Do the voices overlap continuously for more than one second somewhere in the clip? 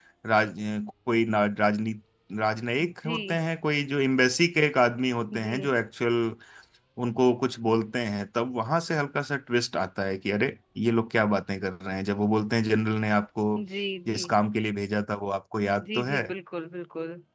No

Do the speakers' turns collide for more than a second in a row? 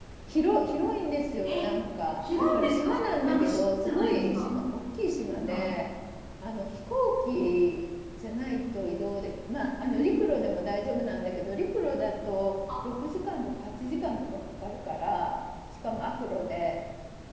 Yes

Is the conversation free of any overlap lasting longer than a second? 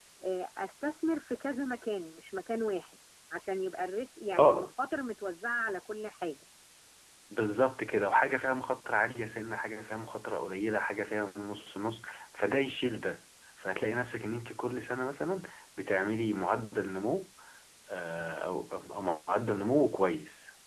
Yes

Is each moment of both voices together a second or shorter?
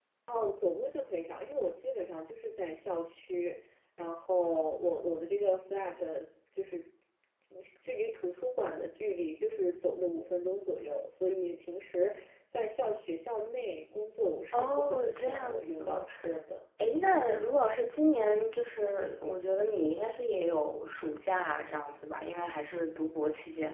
No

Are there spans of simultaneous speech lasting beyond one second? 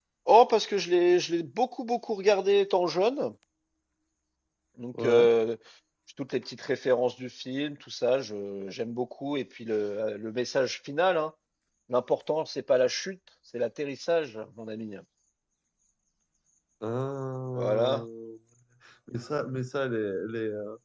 No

